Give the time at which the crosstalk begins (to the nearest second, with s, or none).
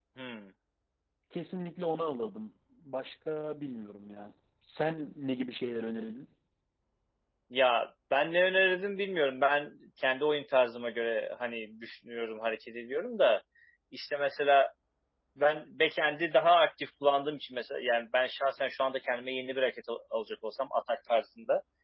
none